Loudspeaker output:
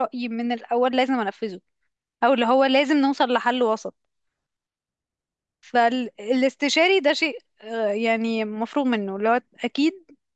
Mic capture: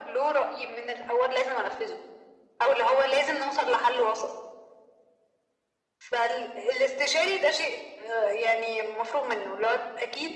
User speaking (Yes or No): No